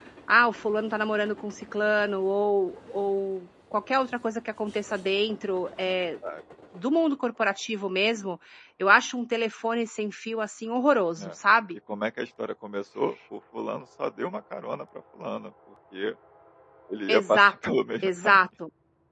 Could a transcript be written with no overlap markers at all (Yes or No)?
No